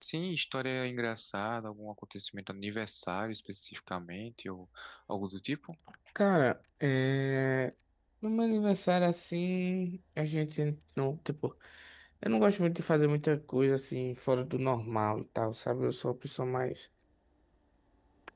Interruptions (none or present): none